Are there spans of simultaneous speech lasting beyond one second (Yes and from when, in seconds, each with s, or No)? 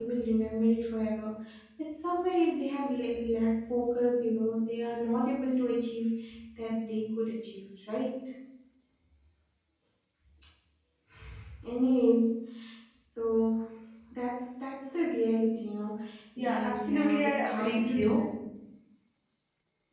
Yes, from 16.4 s